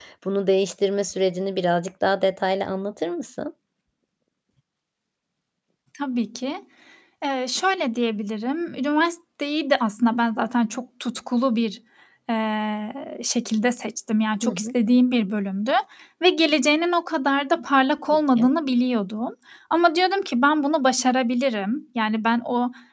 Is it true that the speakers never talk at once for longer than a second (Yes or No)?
Yes